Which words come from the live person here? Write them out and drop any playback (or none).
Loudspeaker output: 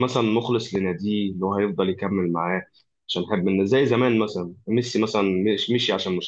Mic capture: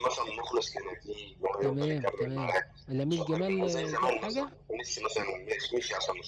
تمام تمام لامين جمال آه، جاب حاجه